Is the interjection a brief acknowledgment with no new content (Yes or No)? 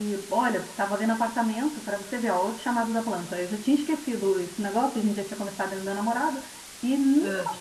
Yes